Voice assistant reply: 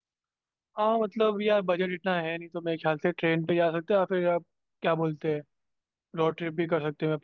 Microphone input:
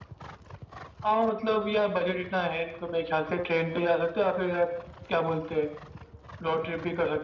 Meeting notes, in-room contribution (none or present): none